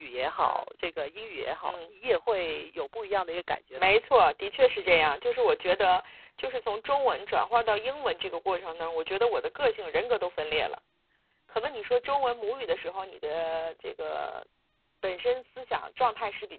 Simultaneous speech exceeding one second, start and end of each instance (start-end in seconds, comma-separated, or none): none